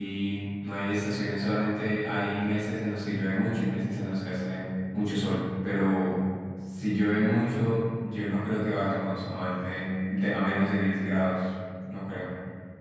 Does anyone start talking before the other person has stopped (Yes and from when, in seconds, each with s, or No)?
No